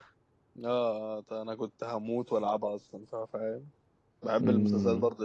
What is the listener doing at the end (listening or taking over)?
taking over